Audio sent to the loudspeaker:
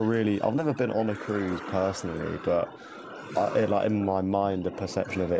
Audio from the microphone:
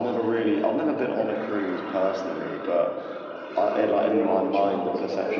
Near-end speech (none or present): present